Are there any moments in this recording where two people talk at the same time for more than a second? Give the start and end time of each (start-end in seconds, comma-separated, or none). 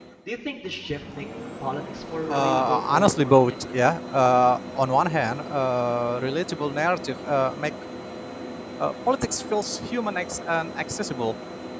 2.3-3.9